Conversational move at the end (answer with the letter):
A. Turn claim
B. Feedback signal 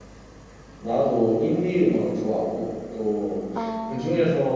B